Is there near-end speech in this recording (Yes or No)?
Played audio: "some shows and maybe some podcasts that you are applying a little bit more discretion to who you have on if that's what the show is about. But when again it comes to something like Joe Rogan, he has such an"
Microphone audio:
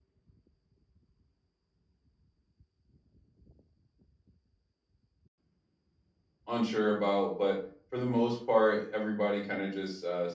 Yes